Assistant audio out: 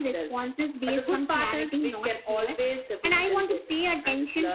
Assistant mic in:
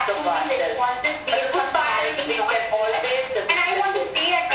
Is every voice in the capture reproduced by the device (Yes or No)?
Yes